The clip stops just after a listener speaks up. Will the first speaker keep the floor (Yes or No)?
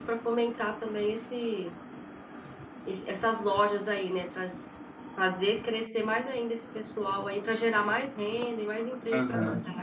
No